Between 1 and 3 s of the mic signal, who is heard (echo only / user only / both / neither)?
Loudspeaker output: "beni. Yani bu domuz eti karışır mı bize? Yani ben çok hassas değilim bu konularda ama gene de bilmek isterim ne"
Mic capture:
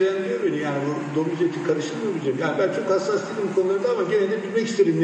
echo only